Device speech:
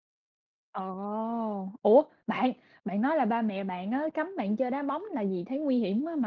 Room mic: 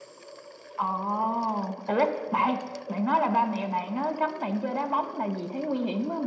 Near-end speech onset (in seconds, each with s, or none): none